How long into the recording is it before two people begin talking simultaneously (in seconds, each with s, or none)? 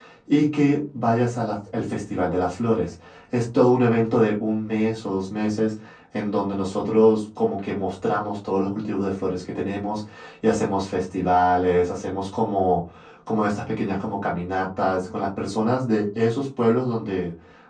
none